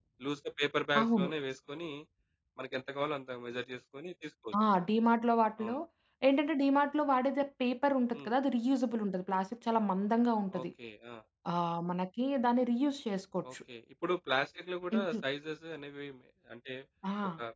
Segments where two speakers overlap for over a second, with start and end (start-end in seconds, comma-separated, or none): none